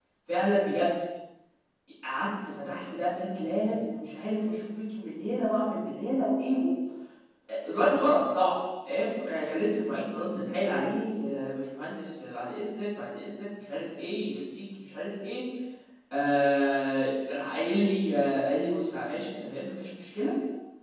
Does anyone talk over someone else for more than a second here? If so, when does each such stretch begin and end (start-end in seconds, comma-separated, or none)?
none